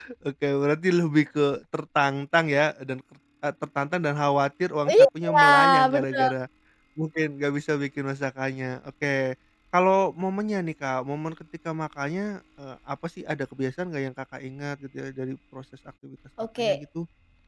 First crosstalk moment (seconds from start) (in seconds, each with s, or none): 4.9 s